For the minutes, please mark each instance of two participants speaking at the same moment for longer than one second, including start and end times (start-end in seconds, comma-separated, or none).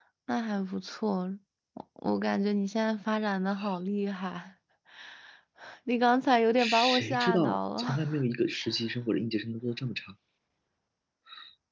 6.6-8.0